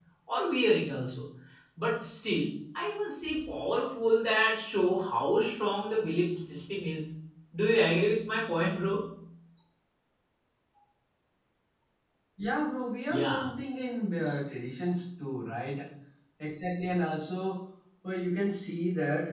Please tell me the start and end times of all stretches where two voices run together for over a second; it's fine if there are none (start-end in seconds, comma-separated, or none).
none